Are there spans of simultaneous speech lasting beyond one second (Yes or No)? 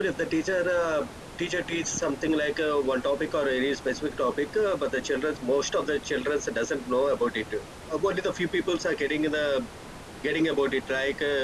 No